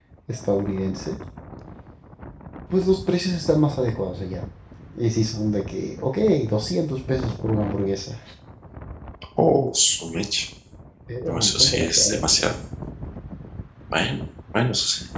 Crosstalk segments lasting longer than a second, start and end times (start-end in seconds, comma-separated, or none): 11.3-12.6